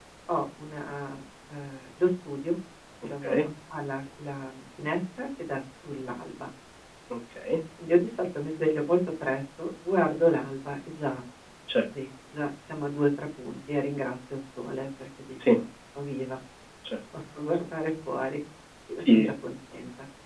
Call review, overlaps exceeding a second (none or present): none